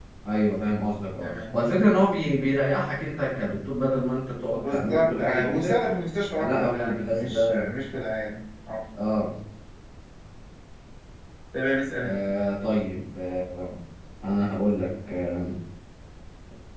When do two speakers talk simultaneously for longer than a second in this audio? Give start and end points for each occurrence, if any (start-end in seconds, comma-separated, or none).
4.5-5.8, 6.4-7.7